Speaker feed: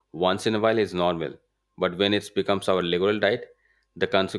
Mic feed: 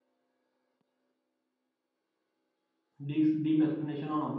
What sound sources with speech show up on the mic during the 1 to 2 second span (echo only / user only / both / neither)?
neither